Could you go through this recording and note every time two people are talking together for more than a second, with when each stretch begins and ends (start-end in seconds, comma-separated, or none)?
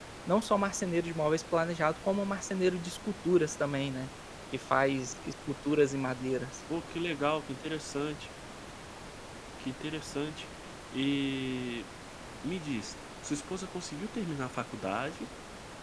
none